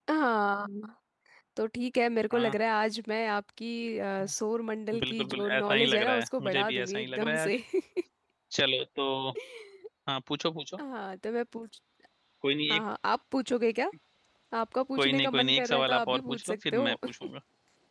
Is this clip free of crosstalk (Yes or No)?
No